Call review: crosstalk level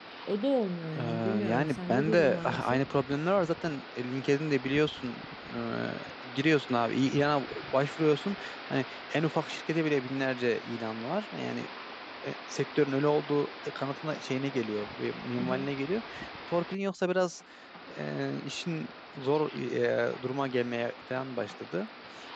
present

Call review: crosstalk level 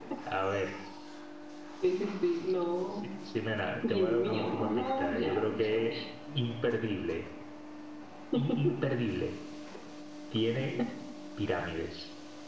present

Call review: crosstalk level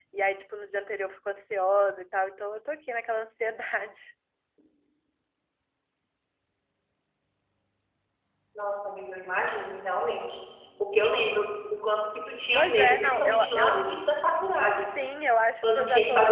present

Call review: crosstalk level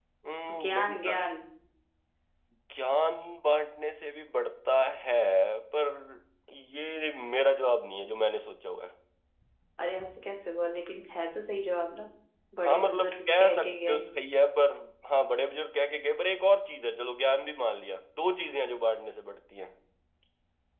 present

